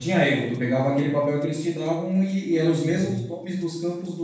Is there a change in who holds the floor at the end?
No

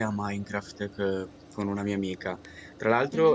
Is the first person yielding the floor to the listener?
No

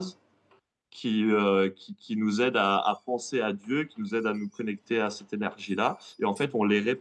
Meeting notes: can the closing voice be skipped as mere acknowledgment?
Yes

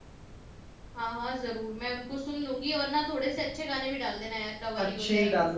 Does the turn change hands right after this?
Yes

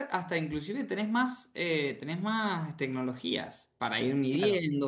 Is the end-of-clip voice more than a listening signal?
Yes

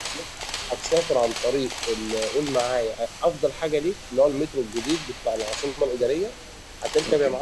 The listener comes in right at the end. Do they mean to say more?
No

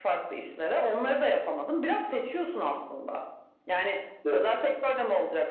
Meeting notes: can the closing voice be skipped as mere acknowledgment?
Yes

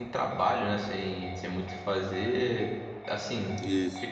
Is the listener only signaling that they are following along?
Yes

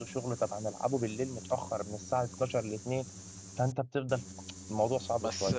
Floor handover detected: Yes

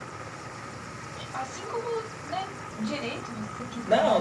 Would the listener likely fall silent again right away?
No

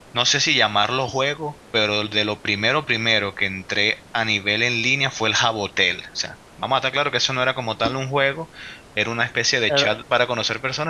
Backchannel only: Yes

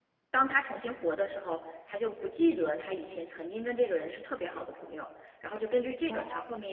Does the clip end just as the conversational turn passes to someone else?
No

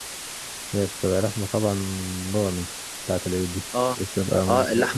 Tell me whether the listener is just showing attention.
No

